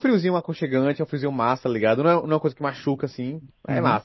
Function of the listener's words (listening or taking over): taking over